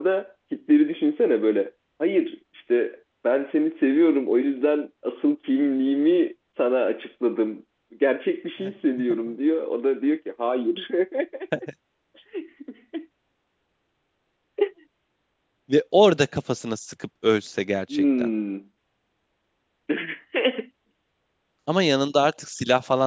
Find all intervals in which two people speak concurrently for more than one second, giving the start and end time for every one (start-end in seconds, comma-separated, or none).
none